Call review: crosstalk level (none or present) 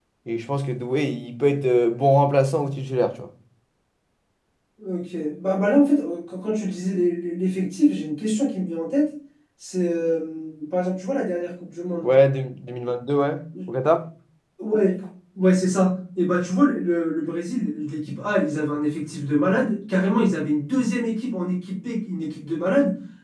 none